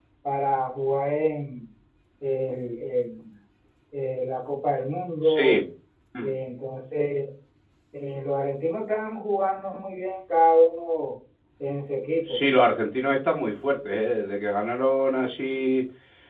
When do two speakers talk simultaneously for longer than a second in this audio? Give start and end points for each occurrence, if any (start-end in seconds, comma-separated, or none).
none